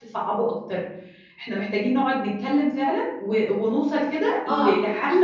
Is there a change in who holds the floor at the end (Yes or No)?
No